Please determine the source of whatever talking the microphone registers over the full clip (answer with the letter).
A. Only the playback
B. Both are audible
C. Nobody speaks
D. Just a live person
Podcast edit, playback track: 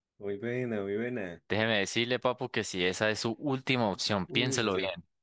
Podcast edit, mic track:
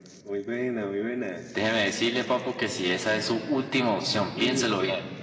A